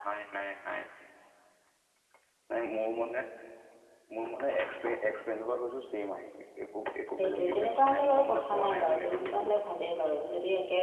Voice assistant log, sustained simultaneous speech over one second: present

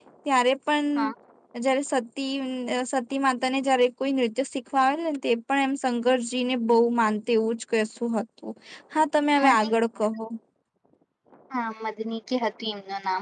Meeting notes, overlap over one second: none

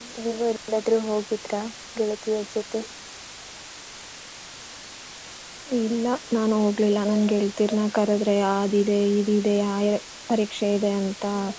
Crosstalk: none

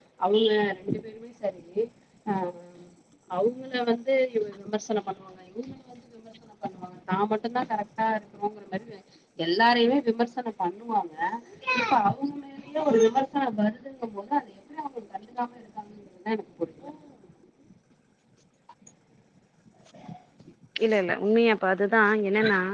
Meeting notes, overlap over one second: none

